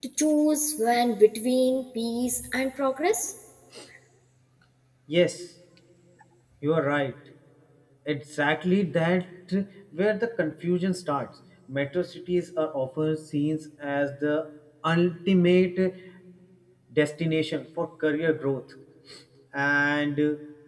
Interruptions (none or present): none